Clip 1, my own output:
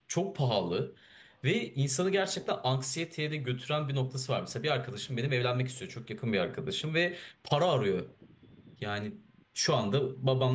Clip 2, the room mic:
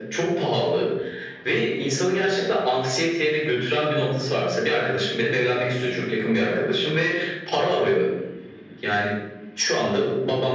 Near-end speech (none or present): none